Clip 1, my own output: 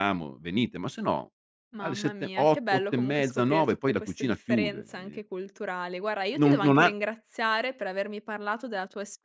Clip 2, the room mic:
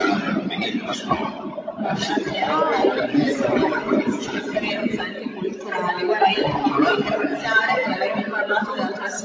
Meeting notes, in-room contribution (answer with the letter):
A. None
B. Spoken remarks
B